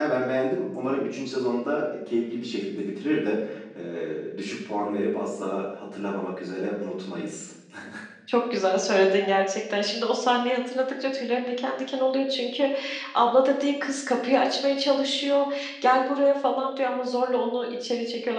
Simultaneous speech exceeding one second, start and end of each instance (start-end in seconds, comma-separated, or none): none